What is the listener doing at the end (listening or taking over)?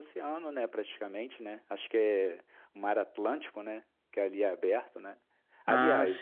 listening